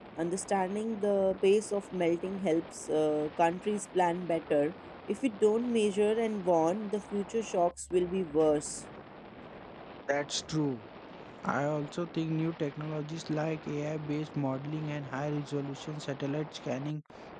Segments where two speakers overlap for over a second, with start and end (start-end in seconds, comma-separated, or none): none